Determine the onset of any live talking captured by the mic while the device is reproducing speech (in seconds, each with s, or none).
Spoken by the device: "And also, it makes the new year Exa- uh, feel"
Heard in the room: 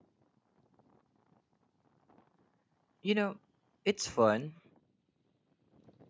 3.0 s